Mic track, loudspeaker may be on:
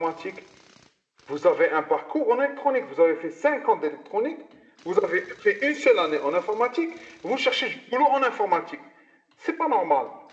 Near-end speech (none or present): none